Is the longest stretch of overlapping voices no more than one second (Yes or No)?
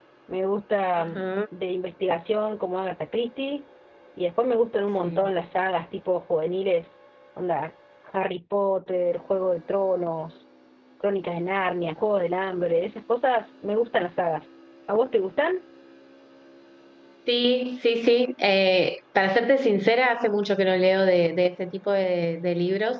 Yes